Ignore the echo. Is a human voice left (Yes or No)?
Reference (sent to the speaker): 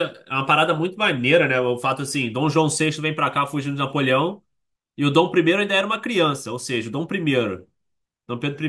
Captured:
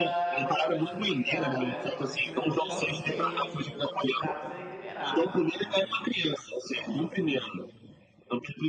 Yes